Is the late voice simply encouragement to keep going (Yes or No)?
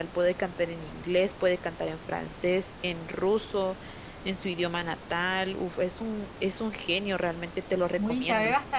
No